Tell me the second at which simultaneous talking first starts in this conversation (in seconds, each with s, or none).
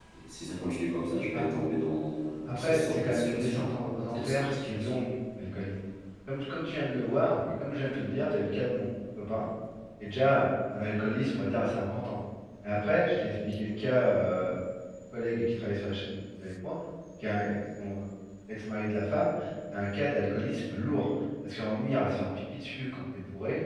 2.5 s